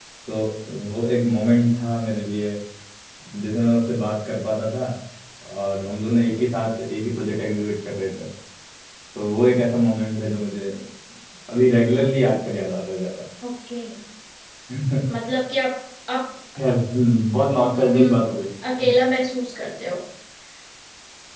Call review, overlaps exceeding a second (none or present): none